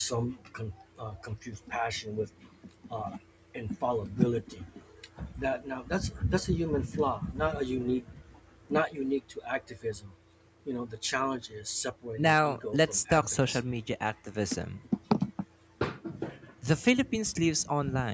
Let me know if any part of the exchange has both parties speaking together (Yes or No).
Yes